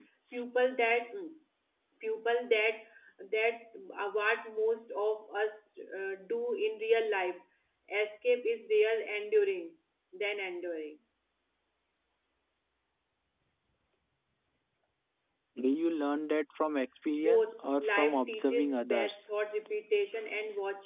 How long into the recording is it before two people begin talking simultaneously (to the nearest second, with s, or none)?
17 s